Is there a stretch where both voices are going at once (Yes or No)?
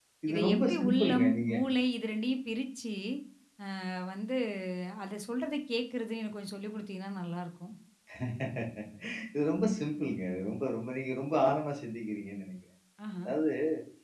Yes